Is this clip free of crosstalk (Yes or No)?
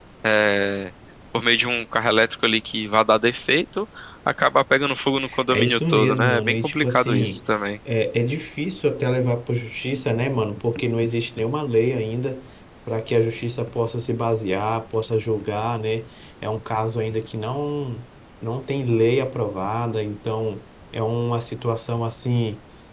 No